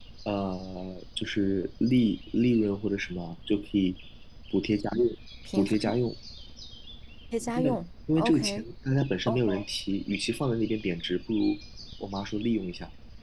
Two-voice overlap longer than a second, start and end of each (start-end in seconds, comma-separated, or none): none